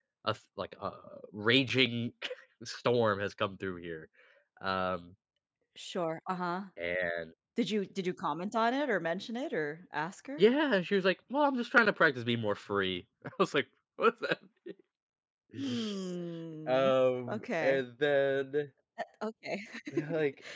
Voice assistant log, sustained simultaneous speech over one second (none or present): none